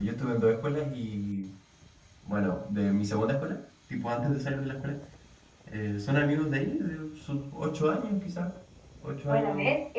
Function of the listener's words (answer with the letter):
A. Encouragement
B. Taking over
B